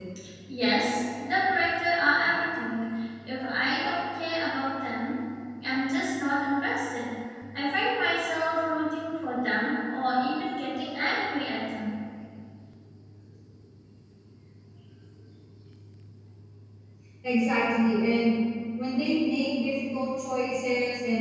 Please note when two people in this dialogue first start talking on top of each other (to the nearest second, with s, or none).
none